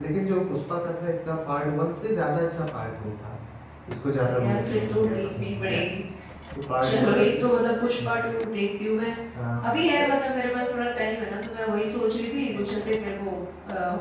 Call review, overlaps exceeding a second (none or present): present